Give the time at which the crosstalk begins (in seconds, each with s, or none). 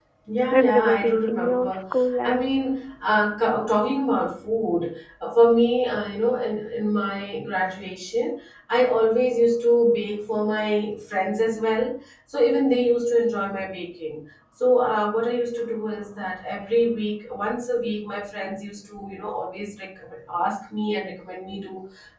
0.5 s